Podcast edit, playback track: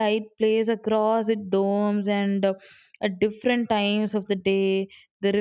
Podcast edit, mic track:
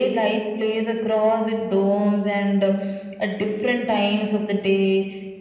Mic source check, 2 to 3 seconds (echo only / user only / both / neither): echo only